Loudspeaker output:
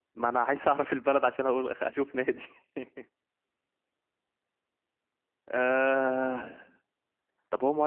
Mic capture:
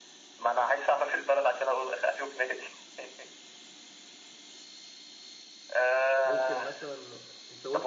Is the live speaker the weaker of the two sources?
Yes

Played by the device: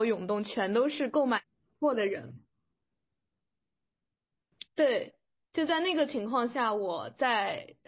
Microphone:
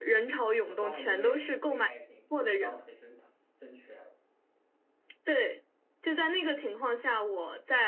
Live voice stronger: No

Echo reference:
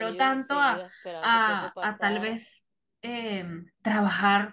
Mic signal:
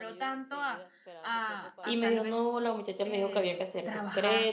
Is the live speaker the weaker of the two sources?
No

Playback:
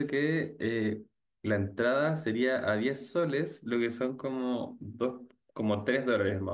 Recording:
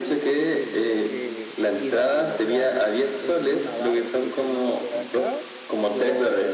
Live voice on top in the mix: No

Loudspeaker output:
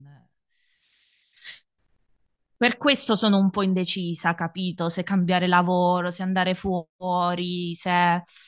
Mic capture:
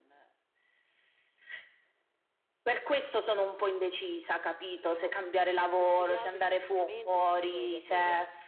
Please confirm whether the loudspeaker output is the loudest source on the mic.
Yes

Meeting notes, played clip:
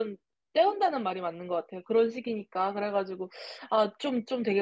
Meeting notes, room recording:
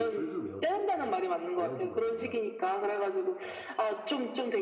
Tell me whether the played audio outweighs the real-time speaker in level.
Yes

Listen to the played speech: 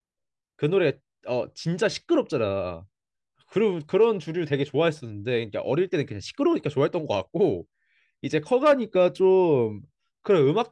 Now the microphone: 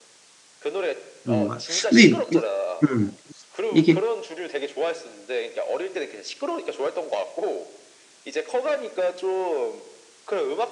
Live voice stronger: Yes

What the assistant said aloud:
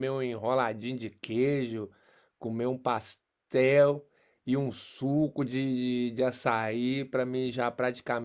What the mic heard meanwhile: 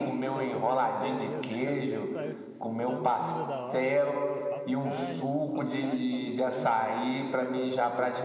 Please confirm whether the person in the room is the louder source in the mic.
No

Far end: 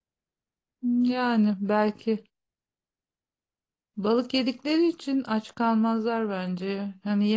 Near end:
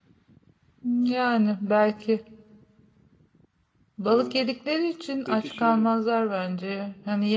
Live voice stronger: No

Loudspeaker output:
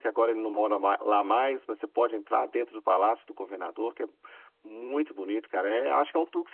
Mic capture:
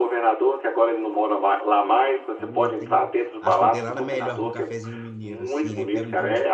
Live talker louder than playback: No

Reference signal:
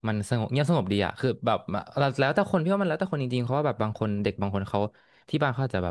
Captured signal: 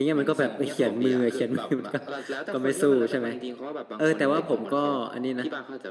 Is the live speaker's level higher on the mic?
Yes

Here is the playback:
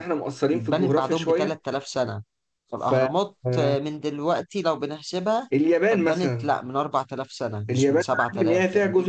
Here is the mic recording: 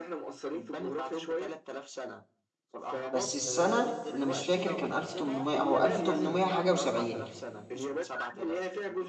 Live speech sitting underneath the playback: No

